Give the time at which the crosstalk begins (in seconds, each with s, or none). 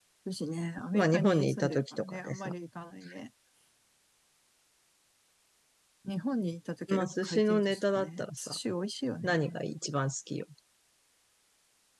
0.9 s